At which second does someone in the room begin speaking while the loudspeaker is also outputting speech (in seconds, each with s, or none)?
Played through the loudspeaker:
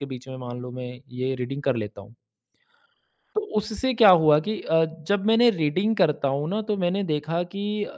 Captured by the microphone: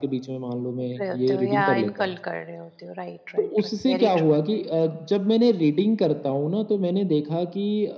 0.8 s